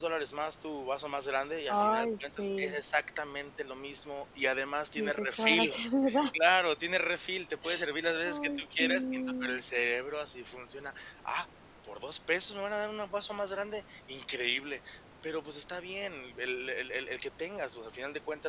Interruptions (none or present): present